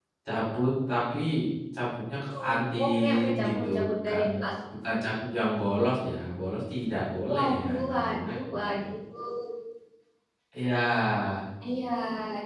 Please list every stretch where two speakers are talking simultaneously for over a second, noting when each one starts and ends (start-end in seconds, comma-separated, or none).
2.4-4.2, 7.3-9.0